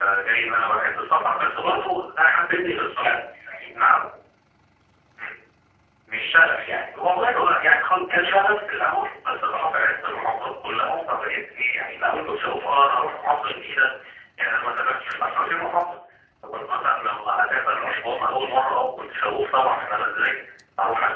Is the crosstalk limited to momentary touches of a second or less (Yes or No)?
Yes